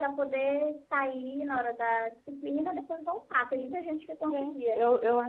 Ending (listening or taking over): taking over